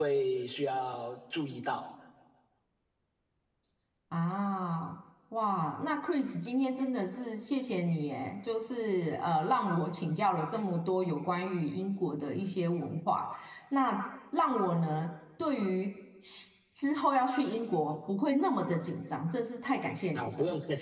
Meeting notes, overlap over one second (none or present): none